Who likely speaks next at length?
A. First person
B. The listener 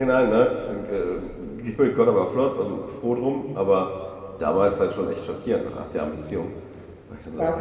B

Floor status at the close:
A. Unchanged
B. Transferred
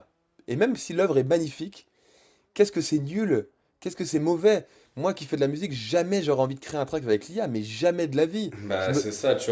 B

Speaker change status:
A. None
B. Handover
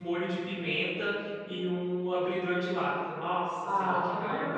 B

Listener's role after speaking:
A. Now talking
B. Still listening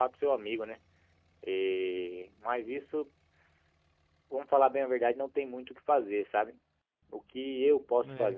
B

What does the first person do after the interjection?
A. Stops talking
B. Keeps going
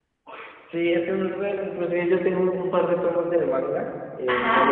B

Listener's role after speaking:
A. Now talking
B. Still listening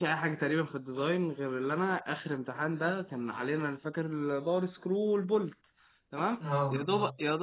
B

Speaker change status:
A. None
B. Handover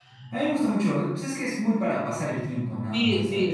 B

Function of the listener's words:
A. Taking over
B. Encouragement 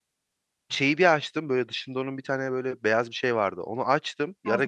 B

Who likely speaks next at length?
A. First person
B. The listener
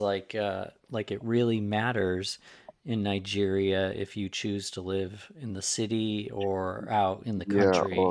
B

